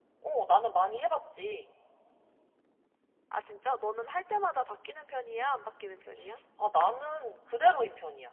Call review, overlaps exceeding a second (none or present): none